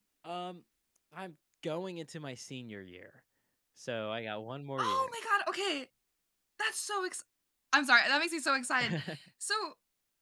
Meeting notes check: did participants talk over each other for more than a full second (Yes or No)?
No